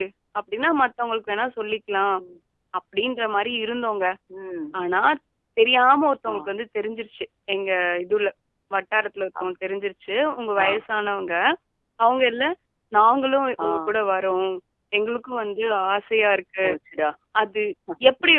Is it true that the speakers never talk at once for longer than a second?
Yes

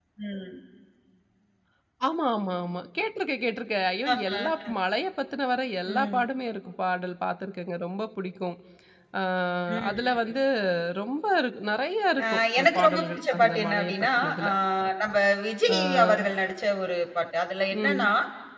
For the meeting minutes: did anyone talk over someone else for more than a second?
Yes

